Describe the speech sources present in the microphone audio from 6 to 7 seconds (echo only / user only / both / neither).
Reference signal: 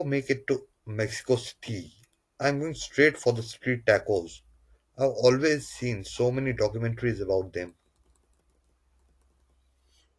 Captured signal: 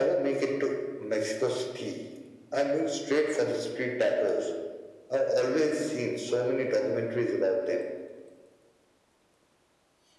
echo only